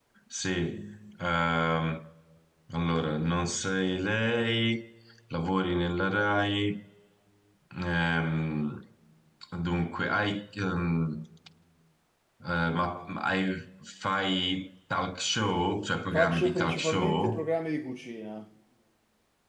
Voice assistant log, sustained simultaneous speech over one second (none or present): present